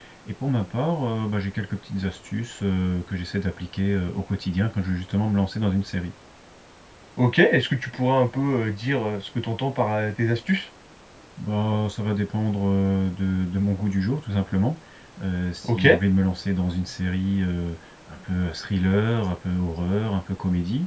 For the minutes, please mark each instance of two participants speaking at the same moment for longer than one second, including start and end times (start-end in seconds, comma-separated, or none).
none